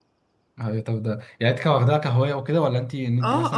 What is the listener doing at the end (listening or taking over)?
taking over